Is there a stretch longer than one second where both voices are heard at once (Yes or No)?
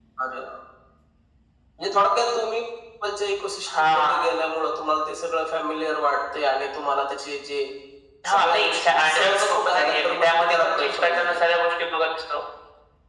Yes